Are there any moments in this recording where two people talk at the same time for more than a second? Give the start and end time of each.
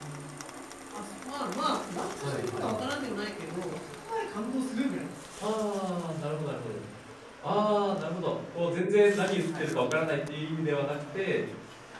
none

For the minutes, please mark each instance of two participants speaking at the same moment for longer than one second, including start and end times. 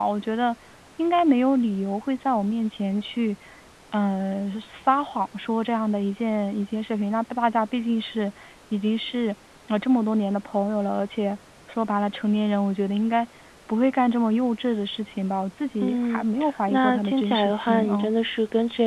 16.7-18.1

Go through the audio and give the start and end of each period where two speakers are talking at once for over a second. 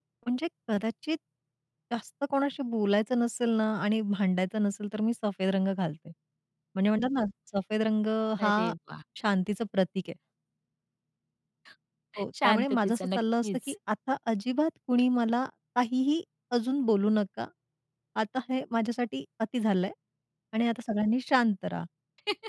12.4-13.7

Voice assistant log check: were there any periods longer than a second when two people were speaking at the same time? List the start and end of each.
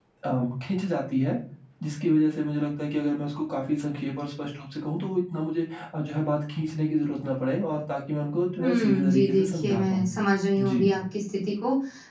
8.6-10.1

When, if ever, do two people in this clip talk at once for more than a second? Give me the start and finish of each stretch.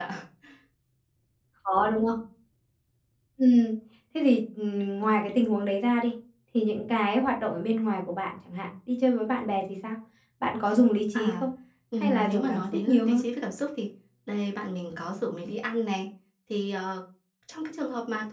12.0-13.2

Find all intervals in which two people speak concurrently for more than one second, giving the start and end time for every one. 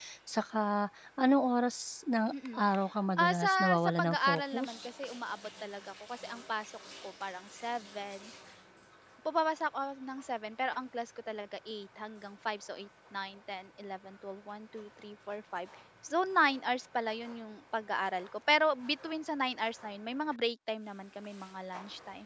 3.2-4.7

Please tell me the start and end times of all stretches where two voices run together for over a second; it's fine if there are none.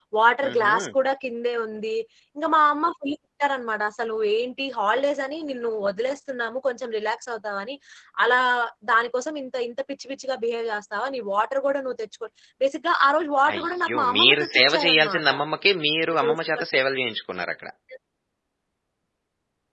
13.5-15.3

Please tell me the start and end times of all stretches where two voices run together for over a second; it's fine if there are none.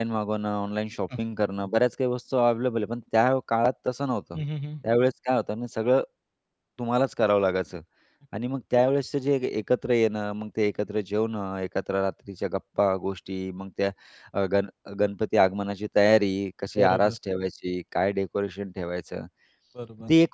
none

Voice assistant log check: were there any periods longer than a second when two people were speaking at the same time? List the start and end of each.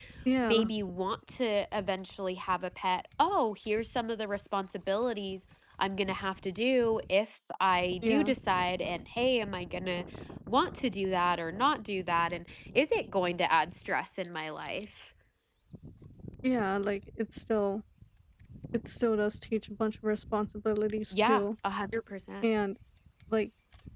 none

